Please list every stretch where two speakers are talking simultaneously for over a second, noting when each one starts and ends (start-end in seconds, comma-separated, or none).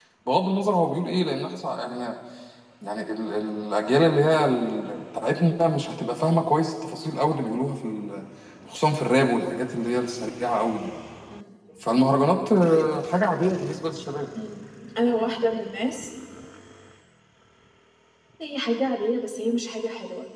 none